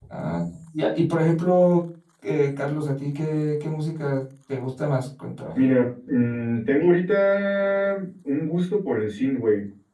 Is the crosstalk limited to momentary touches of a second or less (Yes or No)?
Yes